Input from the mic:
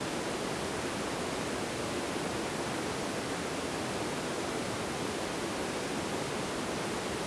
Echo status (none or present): none